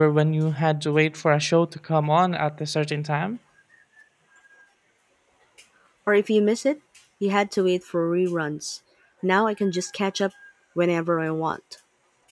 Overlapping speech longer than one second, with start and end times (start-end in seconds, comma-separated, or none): none